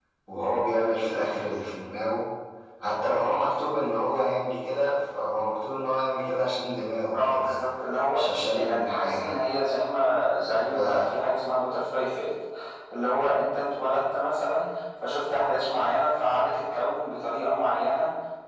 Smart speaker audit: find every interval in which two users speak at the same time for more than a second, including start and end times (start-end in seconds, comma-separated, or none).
8.1-9.3